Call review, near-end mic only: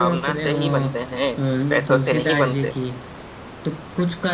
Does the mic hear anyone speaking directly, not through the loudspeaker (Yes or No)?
Yes